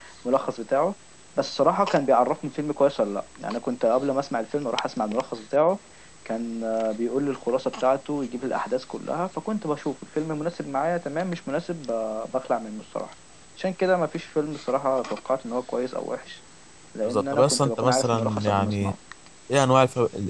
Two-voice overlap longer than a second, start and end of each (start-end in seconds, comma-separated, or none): 17.0-18.9